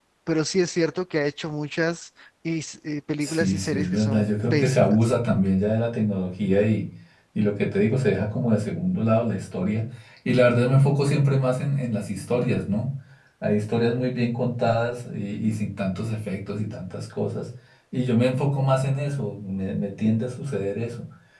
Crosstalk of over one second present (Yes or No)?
Yes